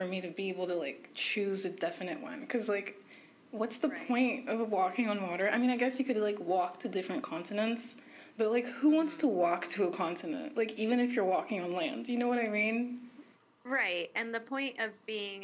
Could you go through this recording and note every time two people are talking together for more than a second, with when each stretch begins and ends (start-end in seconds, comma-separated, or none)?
none